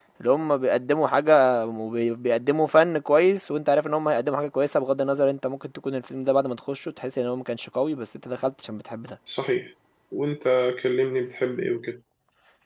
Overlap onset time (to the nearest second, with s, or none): none